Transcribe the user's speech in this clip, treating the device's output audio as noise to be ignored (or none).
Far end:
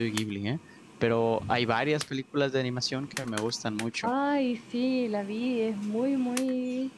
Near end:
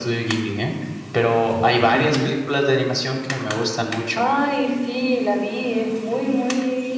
Ujú.